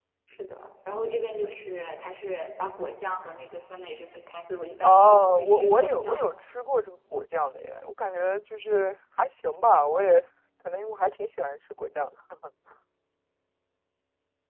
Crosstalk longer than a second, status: present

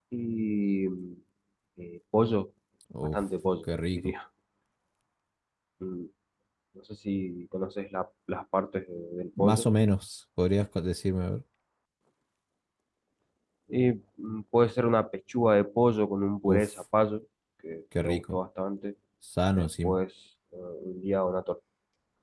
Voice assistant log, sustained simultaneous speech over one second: none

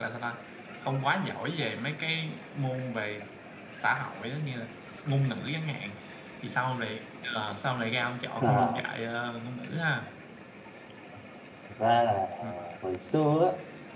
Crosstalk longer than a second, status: none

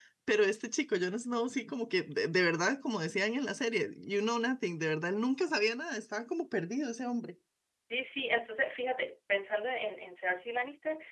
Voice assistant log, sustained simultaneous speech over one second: none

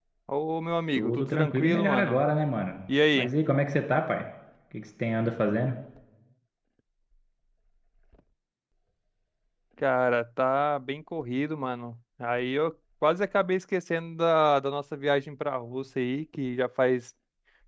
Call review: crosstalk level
present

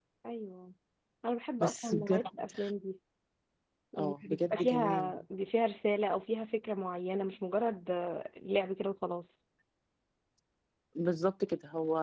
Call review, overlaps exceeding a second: present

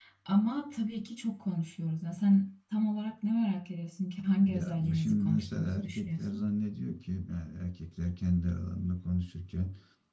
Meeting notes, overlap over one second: present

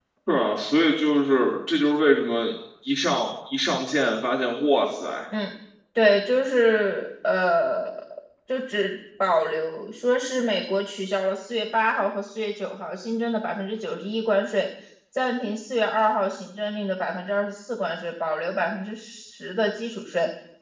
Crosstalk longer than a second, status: none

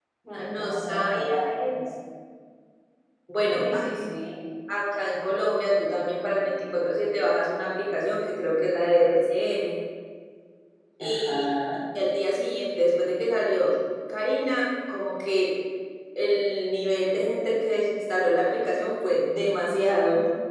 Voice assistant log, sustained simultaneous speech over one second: present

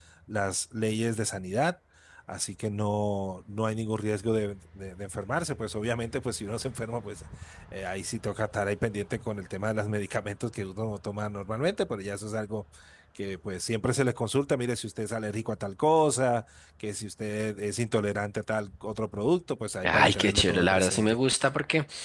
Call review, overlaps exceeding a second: present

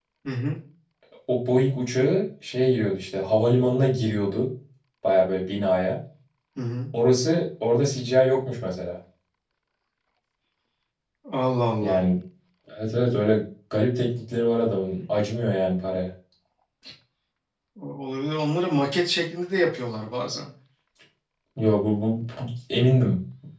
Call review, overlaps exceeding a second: none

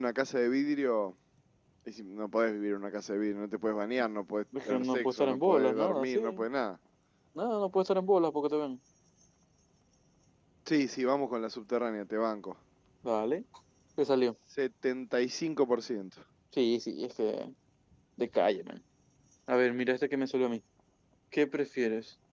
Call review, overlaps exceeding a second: present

